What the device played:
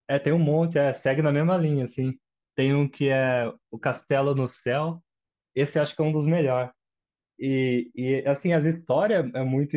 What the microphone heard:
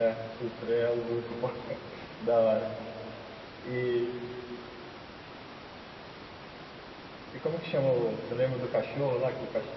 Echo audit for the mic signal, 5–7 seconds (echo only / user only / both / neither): neither